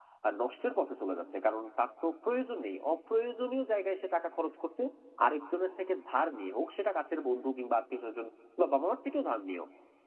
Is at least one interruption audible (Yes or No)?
No